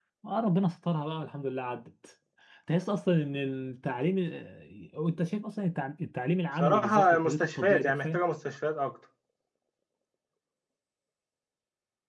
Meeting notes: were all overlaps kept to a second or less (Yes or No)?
No